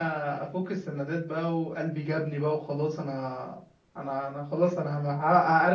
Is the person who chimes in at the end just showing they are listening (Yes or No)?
Yes